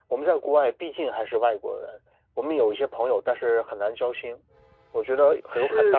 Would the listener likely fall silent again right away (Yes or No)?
No